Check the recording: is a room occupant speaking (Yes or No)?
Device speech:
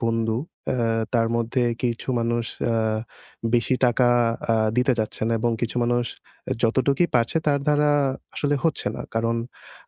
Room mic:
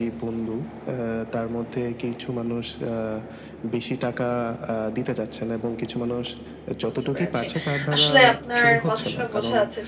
Yes